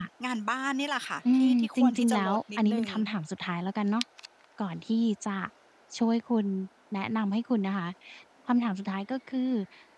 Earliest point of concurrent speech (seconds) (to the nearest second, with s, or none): 1 s